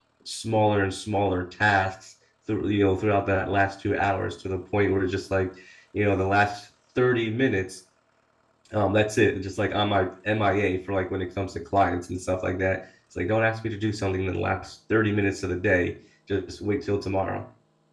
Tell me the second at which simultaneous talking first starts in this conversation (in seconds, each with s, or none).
none